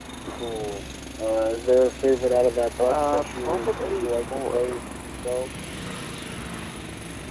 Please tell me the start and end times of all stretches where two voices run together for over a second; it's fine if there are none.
2.9-4.8

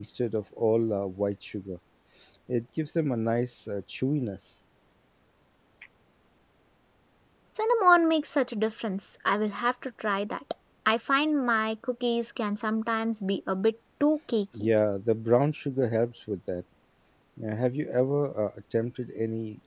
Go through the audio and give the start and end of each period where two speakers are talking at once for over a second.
none

